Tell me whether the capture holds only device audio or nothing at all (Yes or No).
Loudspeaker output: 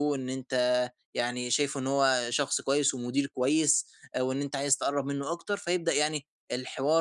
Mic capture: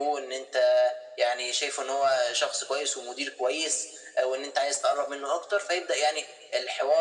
Yes